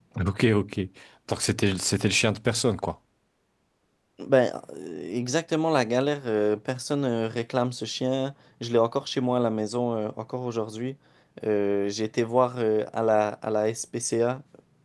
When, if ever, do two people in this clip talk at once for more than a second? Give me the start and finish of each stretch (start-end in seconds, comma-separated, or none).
none